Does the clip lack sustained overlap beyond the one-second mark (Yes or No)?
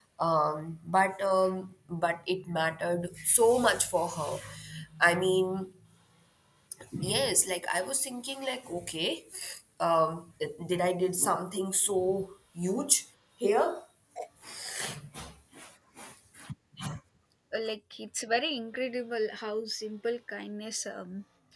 Yes